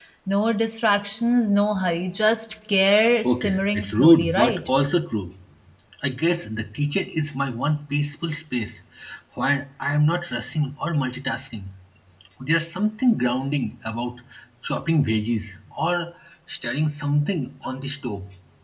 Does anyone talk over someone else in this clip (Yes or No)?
Yes